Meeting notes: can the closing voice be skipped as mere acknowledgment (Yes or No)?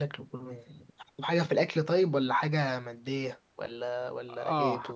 No